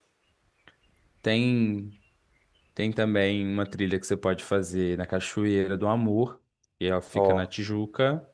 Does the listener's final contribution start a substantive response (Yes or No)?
No